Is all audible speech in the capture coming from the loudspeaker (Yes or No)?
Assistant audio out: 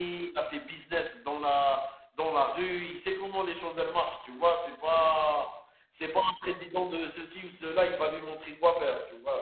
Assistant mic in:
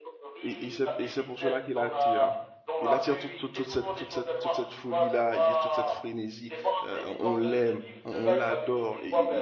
No